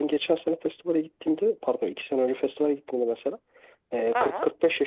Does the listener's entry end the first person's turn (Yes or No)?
No